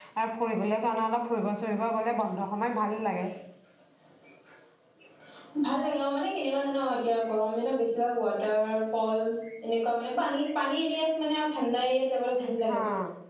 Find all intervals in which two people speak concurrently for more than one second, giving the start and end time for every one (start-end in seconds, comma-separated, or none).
none